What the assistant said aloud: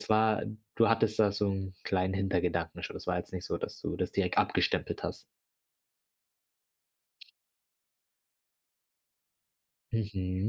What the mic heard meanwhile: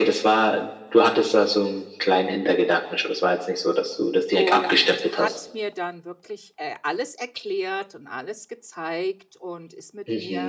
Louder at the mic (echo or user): echo